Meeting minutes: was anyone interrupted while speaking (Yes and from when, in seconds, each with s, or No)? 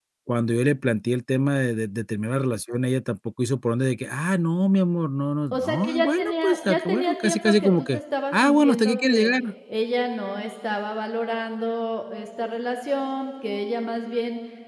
Yes, from 5.5 s